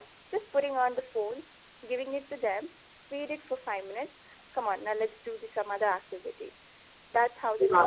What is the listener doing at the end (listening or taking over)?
taking over